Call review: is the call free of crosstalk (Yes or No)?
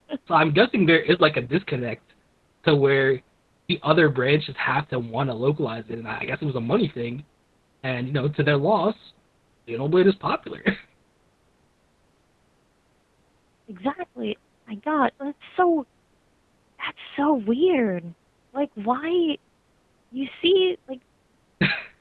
Yes